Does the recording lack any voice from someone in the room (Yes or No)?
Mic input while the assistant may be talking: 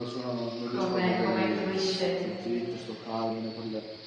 No